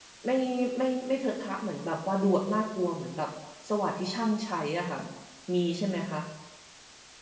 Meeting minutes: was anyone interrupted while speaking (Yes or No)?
No